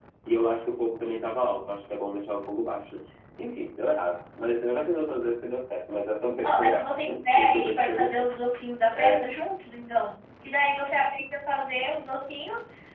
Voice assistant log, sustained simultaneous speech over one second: present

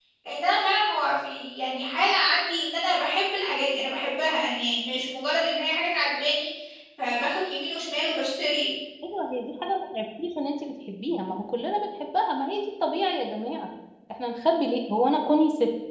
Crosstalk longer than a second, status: none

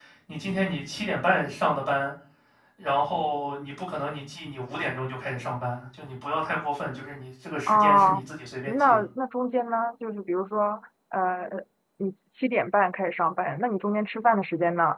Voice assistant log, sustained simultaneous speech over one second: none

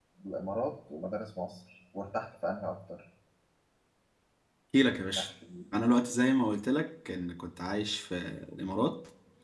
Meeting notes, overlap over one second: none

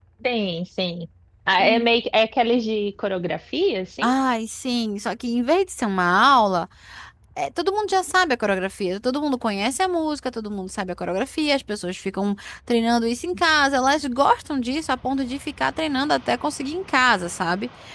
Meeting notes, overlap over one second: none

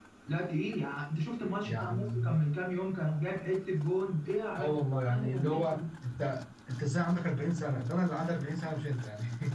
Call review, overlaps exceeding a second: present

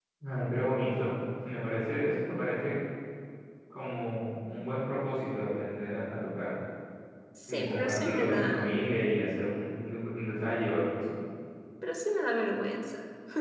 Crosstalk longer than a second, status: present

